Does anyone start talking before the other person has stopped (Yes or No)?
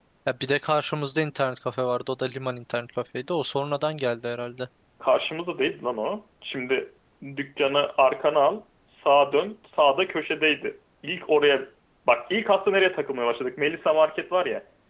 No